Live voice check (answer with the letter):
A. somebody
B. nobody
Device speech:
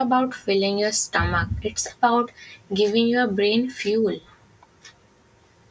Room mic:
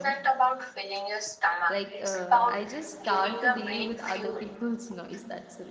A